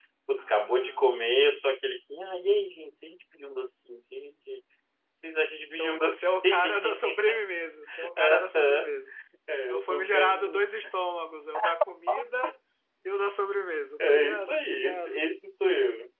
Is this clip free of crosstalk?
No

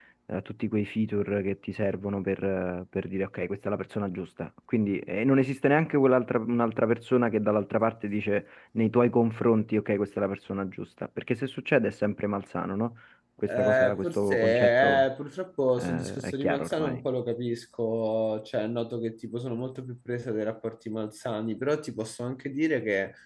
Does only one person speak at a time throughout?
No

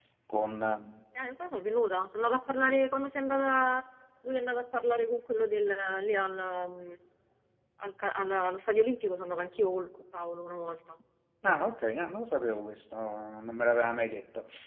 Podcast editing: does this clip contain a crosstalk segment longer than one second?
No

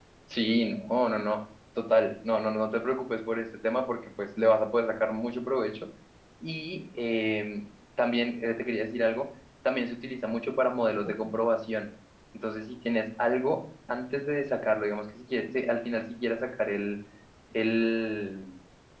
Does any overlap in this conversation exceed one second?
No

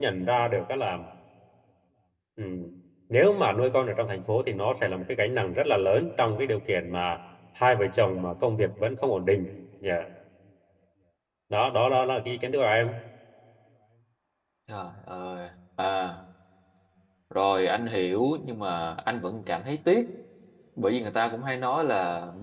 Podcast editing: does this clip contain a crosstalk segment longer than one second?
No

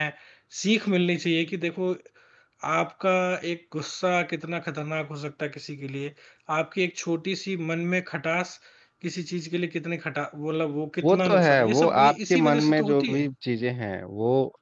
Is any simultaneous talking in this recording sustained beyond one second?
Yes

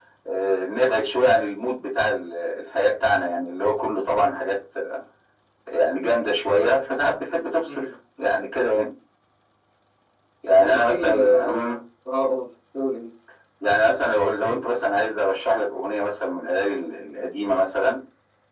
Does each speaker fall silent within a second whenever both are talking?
No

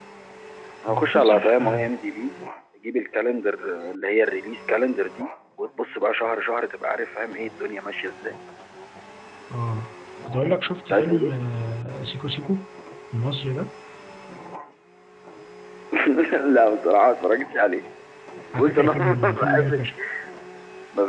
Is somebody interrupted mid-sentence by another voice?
Yes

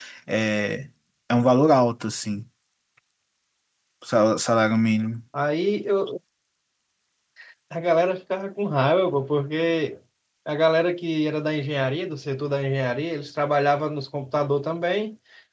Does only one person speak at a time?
Yes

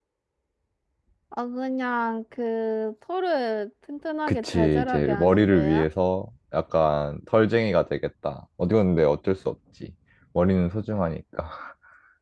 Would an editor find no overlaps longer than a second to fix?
No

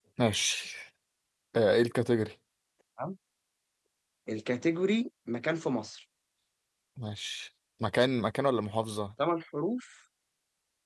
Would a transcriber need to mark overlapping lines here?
No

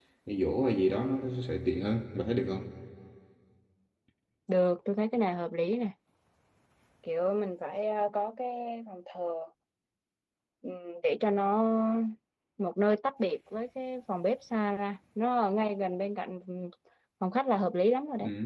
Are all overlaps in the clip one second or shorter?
Yes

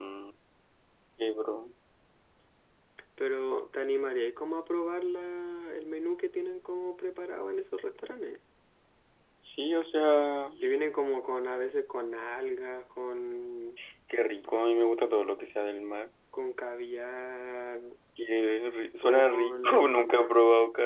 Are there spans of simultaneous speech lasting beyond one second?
Yes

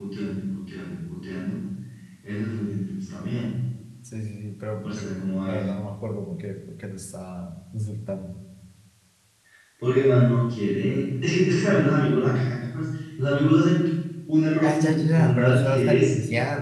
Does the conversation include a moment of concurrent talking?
Yes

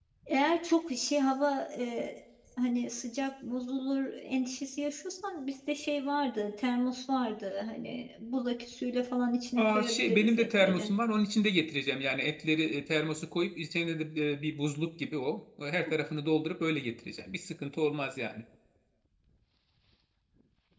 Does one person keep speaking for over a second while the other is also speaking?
Yes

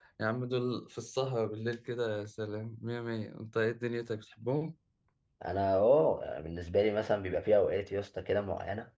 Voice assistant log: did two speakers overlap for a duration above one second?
No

